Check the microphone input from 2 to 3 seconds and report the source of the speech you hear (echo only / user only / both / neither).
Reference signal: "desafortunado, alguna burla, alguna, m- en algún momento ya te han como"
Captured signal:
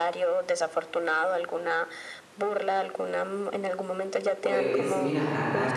echo only